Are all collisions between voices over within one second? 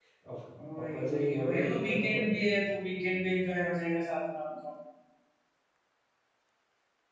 No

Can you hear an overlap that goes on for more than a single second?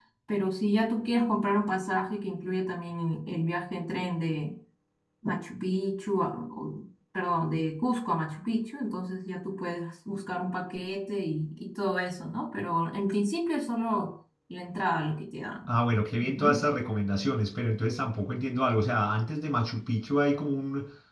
No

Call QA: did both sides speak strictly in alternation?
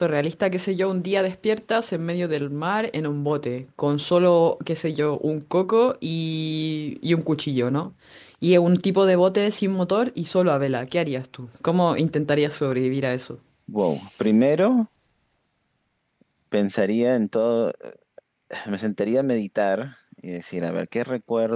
Yes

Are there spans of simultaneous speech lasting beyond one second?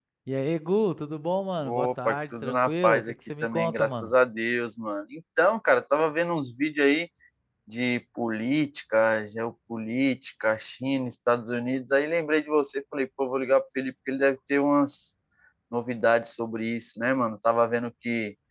Yes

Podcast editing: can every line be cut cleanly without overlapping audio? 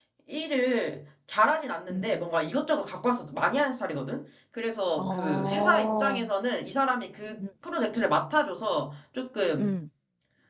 No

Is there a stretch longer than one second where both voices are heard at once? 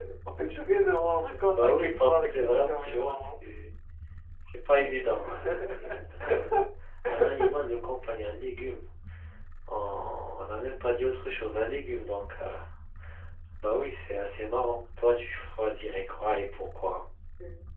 Yes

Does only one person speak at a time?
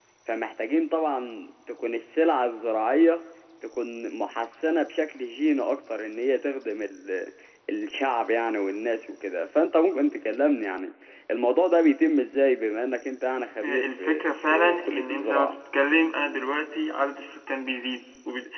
No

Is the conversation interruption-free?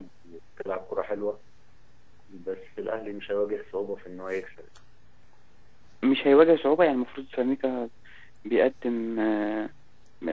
Yes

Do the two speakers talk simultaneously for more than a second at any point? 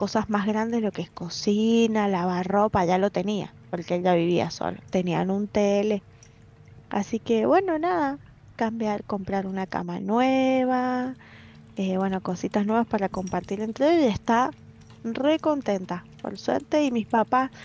No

